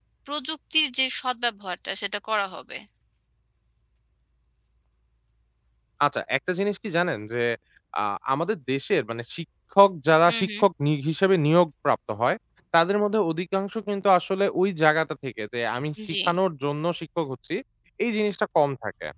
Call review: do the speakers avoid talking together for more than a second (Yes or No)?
Yes